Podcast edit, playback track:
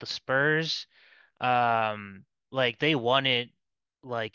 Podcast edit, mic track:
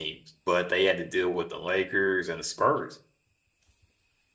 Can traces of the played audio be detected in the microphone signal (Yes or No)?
No